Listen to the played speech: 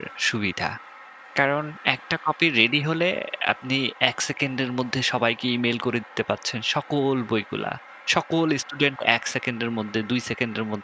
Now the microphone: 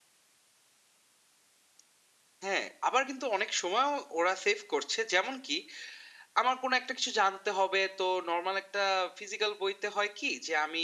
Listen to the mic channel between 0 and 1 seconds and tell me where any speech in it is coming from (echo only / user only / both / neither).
neither